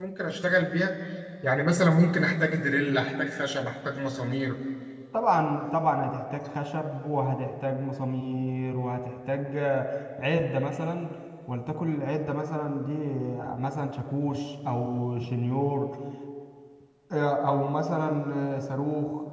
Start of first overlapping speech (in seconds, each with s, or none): none